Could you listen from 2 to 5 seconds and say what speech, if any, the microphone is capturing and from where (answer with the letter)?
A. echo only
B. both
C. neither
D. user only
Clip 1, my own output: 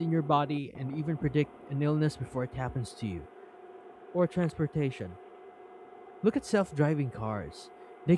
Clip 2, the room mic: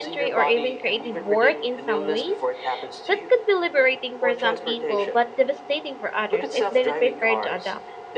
B